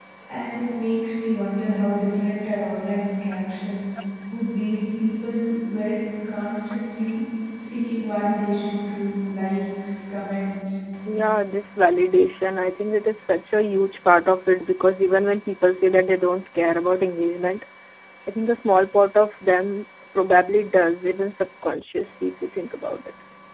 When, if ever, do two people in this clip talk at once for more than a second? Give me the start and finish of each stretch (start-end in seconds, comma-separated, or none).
none